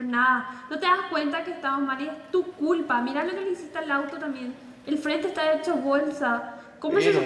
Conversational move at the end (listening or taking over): listening